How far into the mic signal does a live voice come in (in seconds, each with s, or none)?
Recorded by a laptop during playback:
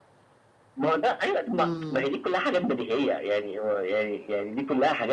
1.6 s